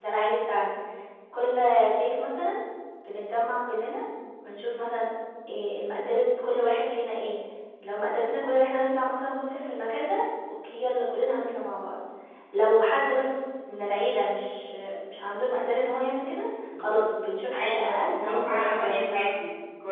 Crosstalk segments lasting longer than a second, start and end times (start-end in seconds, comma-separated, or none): 17.5-19.3